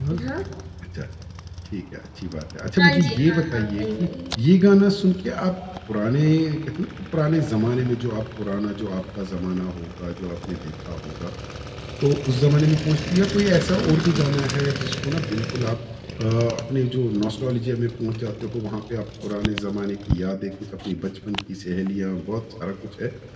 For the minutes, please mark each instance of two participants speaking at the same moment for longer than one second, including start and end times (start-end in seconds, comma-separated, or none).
2.8-4.1